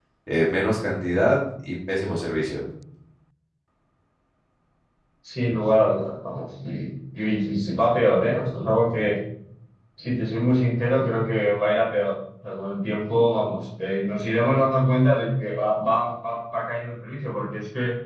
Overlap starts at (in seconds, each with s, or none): none